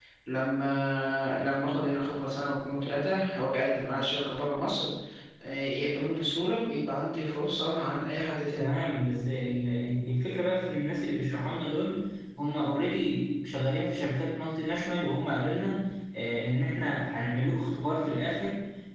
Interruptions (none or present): none